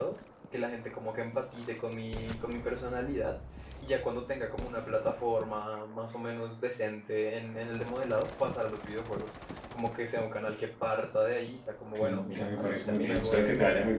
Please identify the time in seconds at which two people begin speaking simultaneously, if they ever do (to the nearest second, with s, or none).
12 s